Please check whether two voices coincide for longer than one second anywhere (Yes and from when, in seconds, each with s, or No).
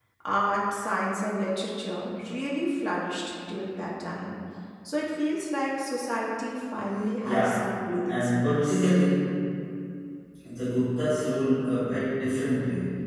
Yes, from 7.2 s